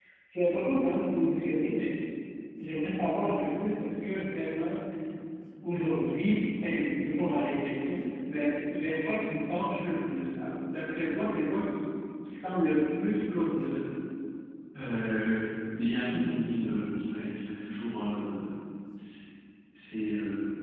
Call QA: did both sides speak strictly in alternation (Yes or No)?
Yes